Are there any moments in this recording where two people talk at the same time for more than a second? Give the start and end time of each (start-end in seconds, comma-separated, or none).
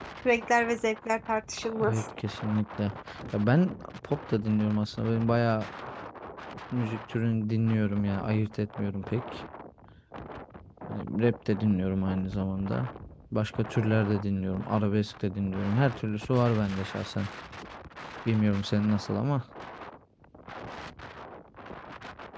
none